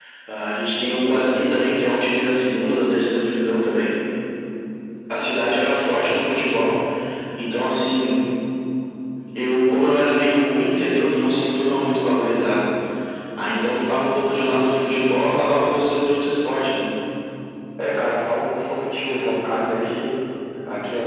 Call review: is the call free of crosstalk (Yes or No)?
Yes